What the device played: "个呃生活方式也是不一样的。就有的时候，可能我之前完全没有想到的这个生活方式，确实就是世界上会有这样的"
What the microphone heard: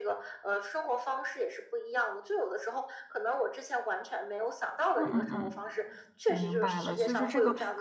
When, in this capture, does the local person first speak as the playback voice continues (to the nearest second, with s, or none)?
5 s